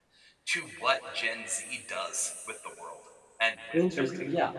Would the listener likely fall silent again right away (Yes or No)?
No